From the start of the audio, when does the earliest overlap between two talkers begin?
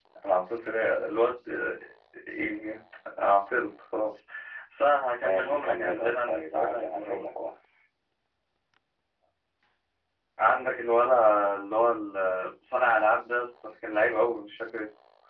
5 s

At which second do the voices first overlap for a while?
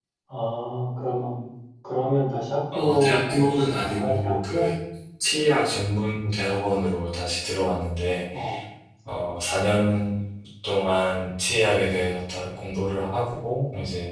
3 s

